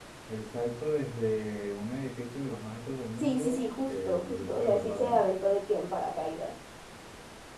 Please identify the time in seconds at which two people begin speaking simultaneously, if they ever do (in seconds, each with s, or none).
3.2 s